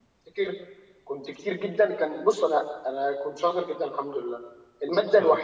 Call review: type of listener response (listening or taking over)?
listening